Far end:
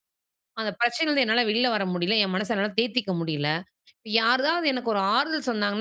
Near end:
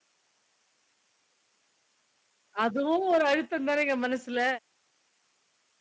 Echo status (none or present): none